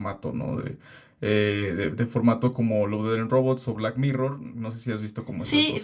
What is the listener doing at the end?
taking over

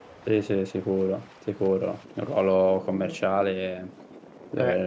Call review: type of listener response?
listening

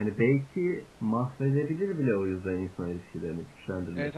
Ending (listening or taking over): taking over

